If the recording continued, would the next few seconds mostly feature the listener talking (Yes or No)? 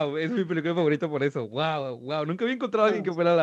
No